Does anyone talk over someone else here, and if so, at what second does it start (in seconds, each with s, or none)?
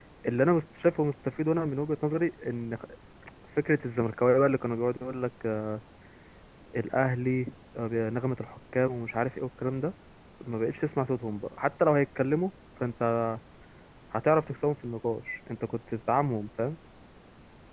none